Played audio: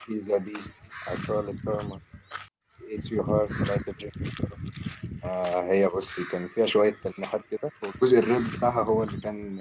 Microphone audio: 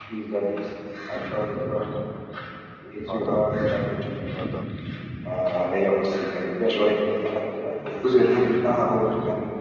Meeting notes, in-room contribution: present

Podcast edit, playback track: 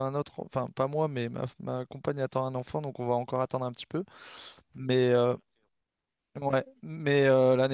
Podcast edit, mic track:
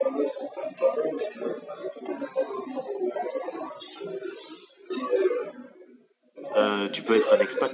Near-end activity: present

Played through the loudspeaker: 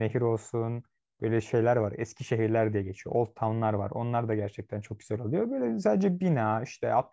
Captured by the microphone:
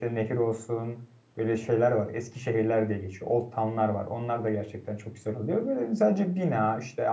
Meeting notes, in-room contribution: none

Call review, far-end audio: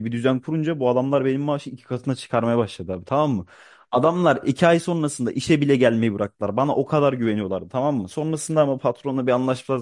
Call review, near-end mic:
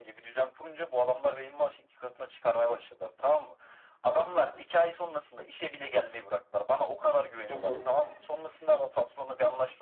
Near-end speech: present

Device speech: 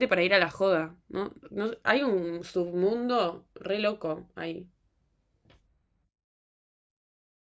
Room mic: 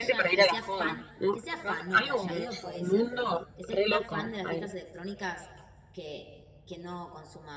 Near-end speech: present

